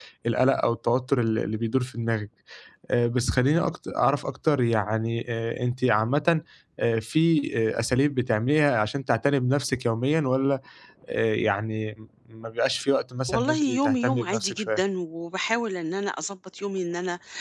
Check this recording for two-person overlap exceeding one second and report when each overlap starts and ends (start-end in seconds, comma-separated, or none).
13.3-14.8